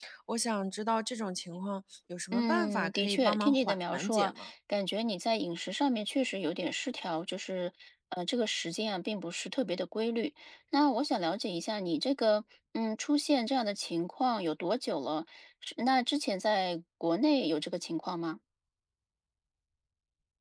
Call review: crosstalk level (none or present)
present